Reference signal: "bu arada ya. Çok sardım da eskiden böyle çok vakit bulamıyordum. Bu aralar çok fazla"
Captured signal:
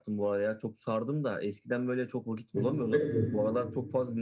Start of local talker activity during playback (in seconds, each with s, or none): 2.5 s